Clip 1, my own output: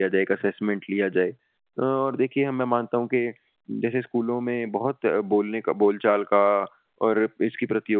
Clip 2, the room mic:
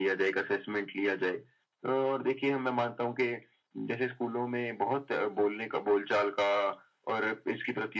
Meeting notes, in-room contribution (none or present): none